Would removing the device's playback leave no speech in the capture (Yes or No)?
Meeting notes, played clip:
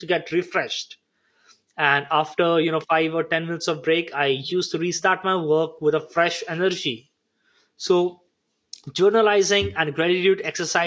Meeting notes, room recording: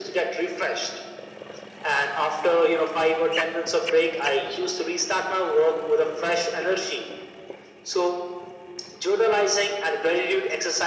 Yes